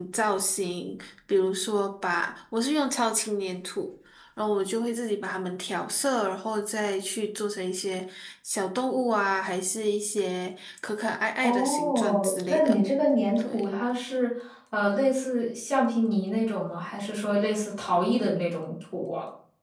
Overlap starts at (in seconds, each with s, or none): 11.4 s